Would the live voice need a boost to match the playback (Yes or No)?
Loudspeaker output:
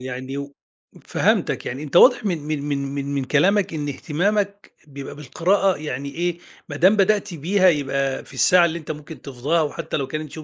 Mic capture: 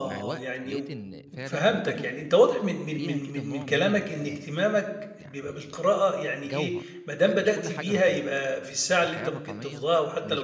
Yes